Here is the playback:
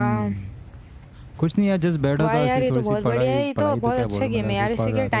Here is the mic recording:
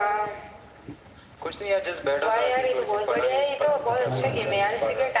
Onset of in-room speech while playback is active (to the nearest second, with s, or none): 4 s